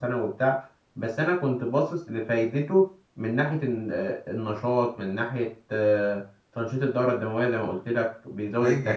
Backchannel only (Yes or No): No